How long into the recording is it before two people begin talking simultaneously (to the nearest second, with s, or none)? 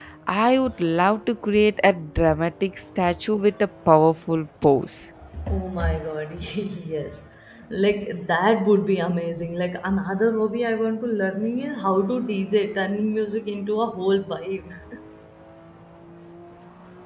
none